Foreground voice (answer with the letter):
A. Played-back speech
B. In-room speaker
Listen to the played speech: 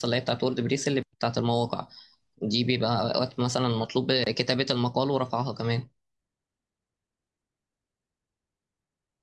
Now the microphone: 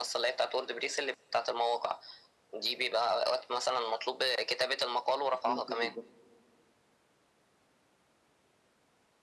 A